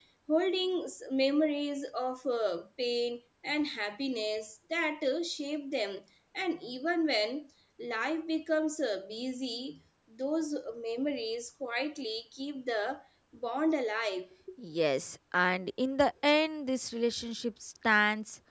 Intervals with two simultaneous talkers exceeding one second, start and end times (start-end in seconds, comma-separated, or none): none